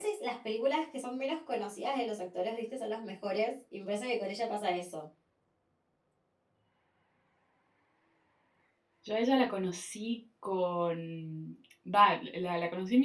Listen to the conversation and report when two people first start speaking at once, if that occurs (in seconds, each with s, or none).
none